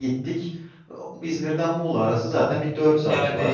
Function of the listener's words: taking over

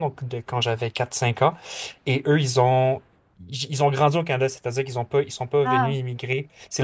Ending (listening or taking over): listening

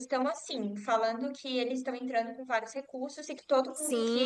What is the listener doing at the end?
listening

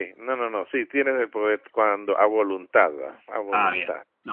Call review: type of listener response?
taking over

